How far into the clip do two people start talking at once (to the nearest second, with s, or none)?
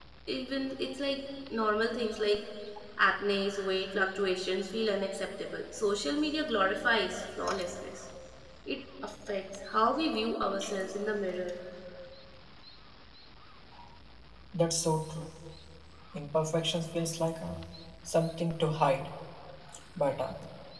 none